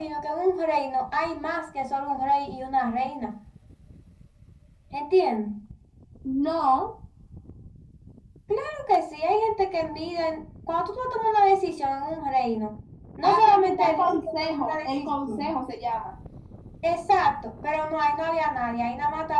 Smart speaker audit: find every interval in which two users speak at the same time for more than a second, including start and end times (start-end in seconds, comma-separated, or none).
13.2-15.6